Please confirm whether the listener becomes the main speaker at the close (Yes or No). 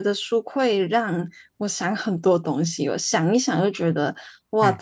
No